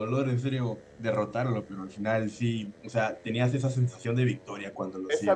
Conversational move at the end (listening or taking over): taking over